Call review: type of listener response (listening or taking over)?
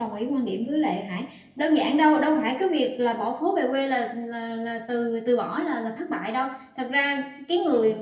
listening